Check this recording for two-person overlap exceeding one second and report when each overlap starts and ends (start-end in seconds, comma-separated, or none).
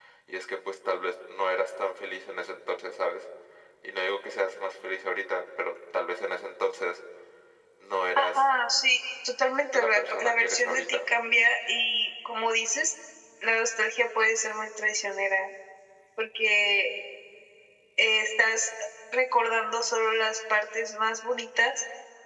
9.8-11.1